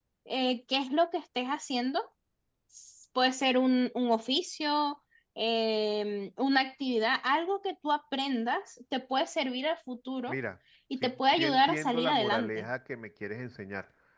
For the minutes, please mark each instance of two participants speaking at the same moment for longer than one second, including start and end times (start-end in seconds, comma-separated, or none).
11.0-12.7